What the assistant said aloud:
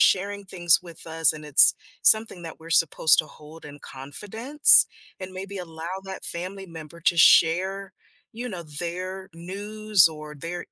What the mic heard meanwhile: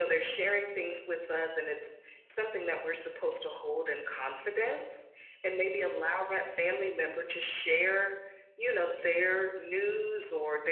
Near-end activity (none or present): none